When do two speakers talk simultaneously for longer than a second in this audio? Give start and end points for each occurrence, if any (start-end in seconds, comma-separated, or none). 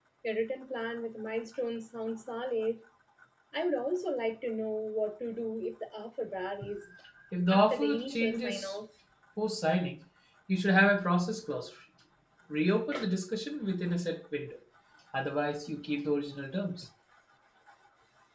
7.5-8.7